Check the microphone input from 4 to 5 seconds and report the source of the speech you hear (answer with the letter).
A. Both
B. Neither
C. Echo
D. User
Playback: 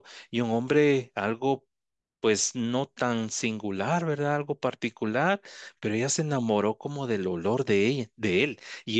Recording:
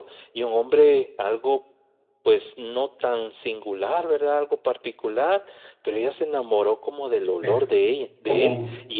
C